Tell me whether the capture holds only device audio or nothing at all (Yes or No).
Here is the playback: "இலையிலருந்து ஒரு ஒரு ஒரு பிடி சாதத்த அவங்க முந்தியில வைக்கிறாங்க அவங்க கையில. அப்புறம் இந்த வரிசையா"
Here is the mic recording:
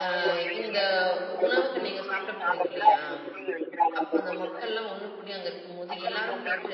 No